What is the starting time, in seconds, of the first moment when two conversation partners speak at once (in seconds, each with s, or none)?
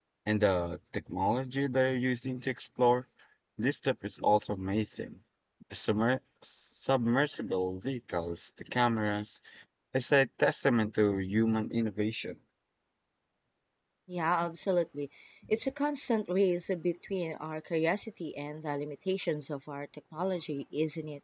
none